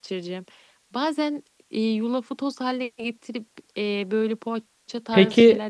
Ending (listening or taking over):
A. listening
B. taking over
B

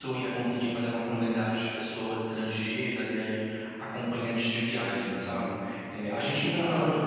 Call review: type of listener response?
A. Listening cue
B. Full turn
A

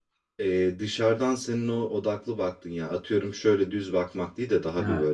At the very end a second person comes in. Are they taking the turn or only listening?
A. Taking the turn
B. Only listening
B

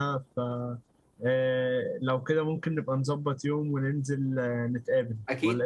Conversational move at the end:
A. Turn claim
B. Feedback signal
A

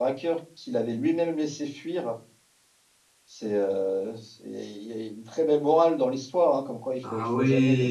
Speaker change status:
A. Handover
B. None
B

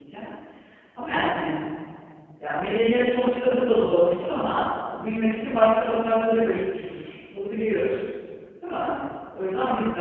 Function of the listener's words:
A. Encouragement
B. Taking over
A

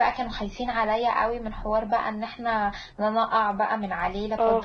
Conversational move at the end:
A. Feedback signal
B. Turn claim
B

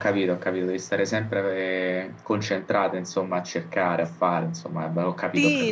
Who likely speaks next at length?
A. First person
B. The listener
B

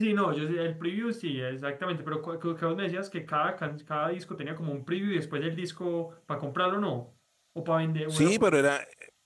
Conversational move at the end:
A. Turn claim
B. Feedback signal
A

